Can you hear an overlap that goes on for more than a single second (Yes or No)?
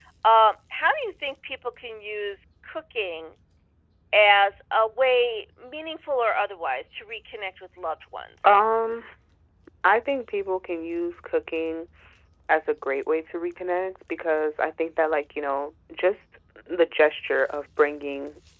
No